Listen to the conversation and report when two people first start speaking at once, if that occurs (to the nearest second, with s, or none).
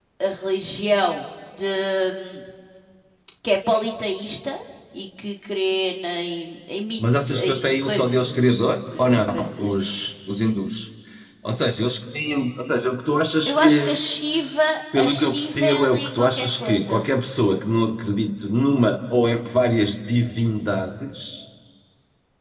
7 s